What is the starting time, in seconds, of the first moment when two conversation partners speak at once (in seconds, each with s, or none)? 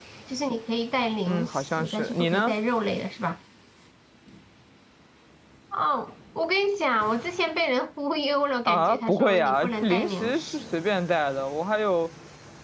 1.2 s